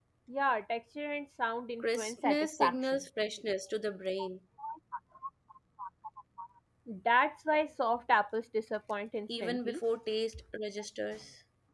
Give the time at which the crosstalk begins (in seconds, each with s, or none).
1.8 s